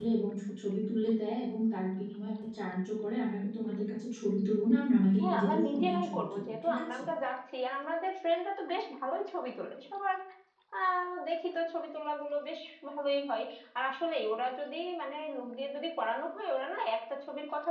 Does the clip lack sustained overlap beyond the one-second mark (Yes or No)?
No